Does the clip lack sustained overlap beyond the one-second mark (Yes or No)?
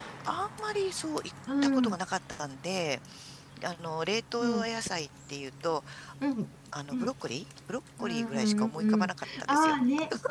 No